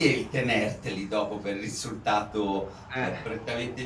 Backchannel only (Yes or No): Yes